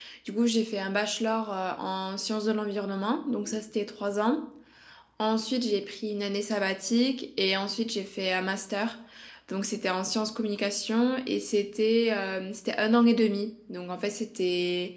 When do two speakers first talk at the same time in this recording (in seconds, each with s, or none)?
none